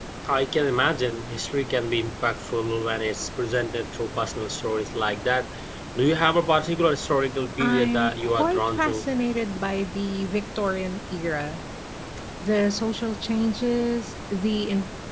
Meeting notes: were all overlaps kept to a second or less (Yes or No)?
No